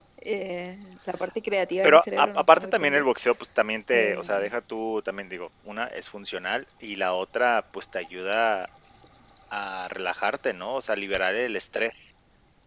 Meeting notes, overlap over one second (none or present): present